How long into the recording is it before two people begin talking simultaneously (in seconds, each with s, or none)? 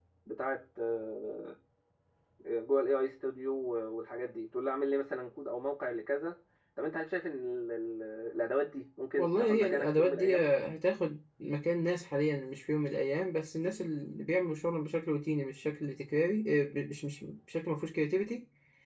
9.2 s